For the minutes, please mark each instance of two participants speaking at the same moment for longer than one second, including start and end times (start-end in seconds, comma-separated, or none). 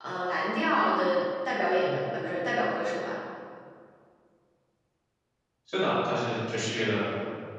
none